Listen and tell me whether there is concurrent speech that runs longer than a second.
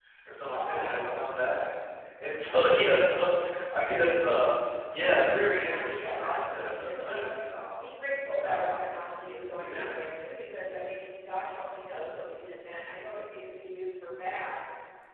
Yes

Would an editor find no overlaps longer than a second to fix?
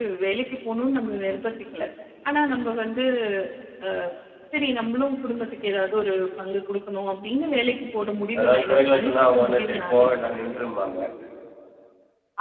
No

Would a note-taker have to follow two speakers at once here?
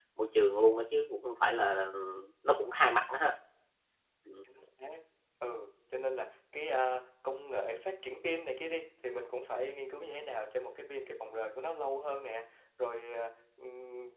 No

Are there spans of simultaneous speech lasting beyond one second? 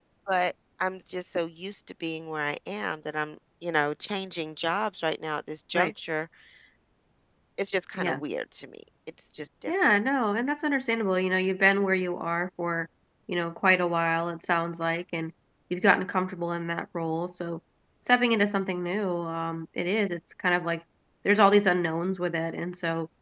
No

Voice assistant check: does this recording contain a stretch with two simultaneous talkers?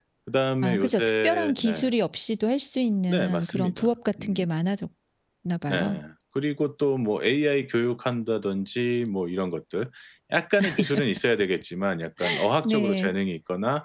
Yes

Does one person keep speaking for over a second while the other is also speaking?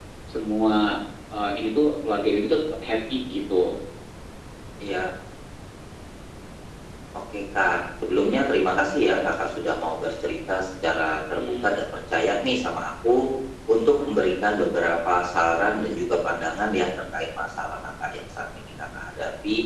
No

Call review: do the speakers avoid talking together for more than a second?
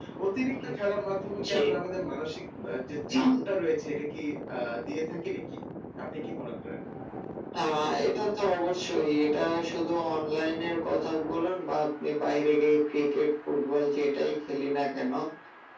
Yes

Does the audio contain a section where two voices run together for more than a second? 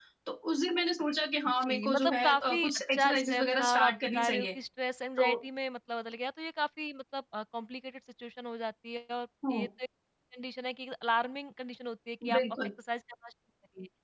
Yes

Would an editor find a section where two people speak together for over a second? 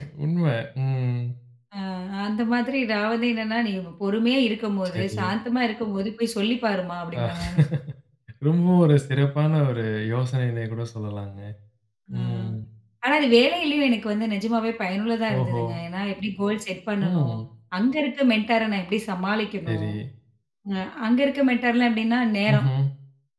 No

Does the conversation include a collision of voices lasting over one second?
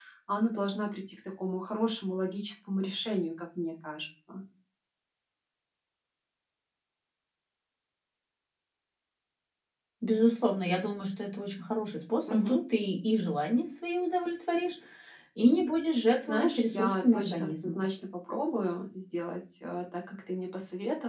Yes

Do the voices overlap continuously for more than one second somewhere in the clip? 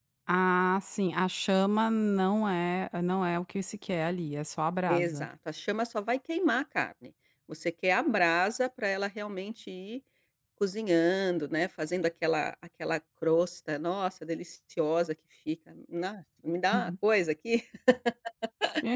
No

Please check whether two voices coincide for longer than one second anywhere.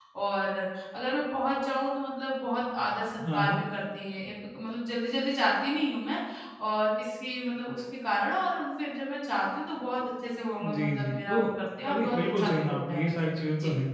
Yes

